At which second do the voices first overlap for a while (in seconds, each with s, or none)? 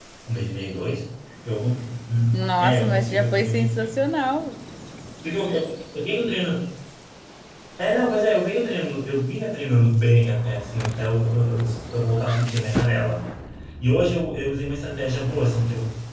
2.6 s